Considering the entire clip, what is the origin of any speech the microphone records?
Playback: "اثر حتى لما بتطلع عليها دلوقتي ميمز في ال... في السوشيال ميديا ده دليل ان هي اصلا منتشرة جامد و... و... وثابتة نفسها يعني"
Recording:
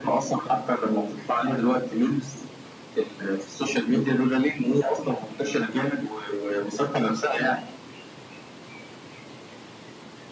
echo only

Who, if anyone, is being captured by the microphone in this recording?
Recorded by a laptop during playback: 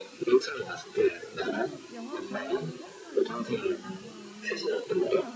both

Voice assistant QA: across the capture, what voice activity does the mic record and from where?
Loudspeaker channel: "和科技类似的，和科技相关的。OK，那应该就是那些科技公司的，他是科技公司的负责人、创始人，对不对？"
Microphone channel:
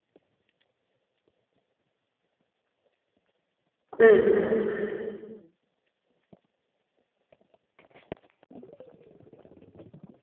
user only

